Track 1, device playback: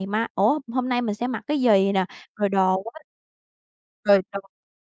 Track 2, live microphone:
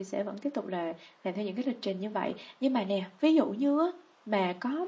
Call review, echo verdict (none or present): none